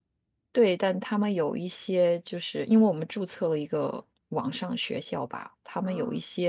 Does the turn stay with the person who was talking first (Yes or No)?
Yes